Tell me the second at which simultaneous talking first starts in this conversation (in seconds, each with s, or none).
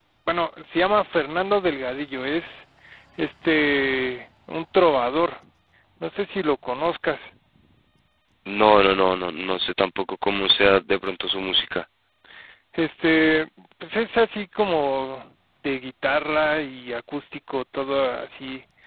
none